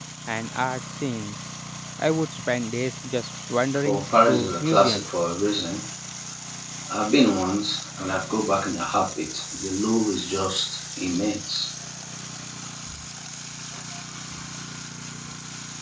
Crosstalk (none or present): present